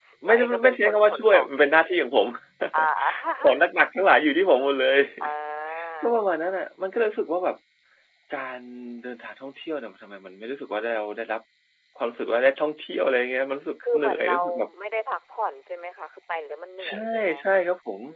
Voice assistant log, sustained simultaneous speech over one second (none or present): present